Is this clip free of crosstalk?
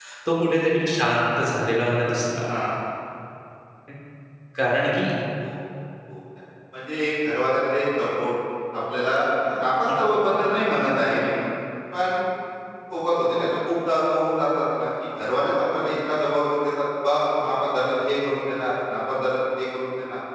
Yes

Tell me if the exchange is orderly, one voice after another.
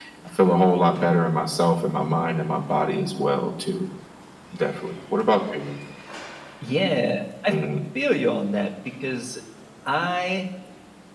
Yes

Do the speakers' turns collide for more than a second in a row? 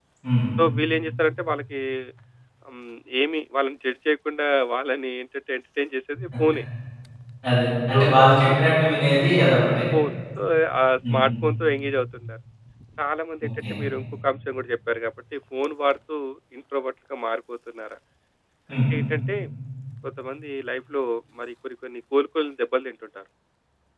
No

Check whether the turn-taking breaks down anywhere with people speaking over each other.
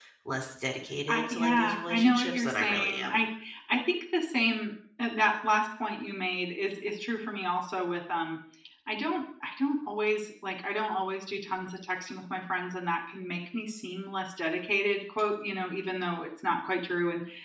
Yes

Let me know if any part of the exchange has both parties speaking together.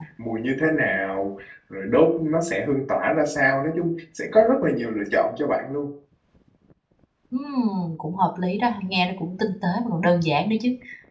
No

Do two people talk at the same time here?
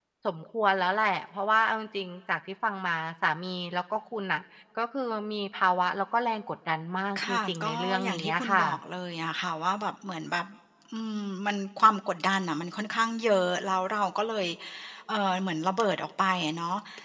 Yes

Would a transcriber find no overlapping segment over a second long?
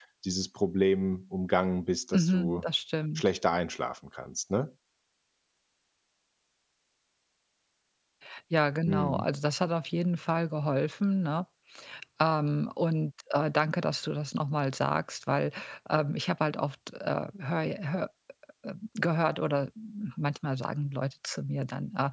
Yes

